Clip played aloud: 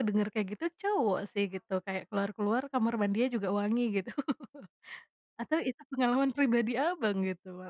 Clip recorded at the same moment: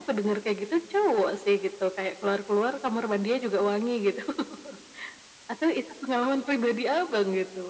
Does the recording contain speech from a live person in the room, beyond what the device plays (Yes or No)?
No